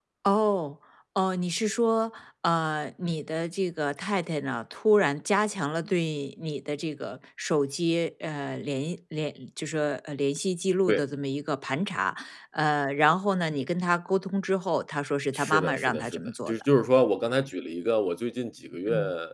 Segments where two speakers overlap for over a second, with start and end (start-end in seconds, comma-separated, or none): 15.3-16.6